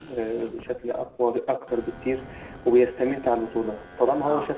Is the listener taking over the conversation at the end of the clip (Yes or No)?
No